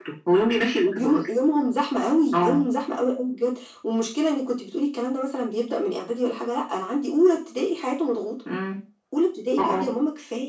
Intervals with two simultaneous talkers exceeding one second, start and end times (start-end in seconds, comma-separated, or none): none